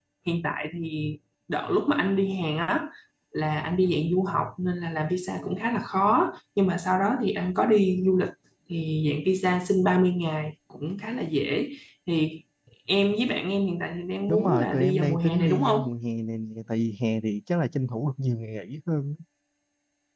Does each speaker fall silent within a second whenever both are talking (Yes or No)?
No